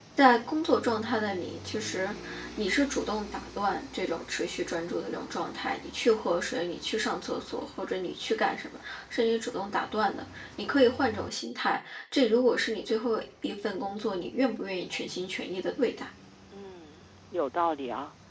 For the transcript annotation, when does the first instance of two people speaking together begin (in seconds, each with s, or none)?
none